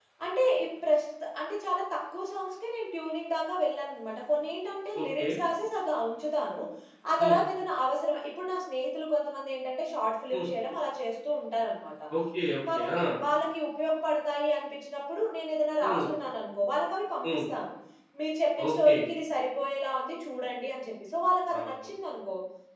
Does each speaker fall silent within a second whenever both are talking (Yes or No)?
Yes